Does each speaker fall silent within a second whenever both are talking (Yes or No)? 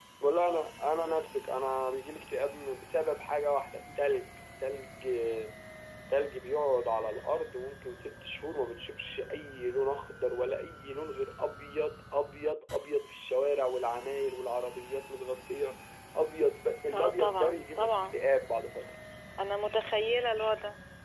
No